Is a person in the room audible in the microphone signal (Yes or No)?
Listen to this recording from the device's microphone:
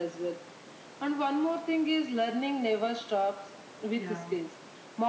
Yes